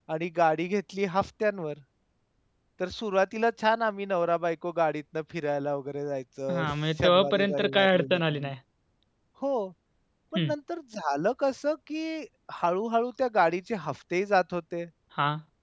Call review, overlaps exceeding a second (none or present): present